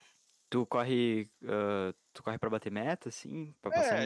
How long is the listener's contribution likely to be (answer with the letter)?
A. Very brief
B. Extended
B